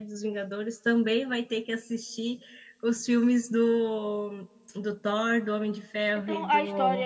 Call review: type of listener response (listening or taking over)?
taking over